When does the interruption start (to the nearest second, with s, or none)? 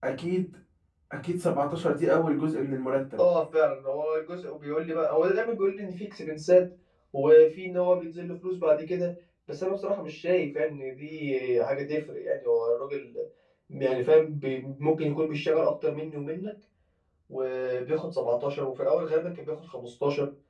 none